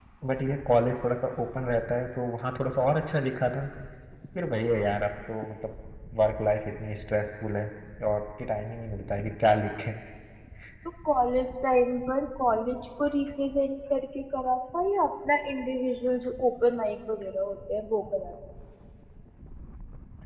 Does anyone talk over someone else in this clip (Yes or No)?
No